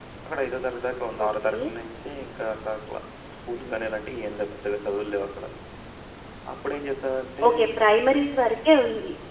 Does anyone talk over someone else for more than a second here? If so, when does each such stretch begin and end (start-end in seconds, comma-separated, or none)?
none